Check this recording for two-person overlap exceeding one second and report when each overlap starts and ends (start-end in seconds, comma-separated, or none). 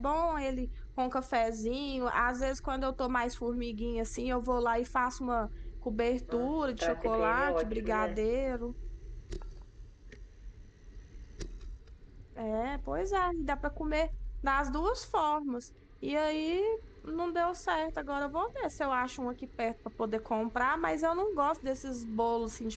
6.3-8.3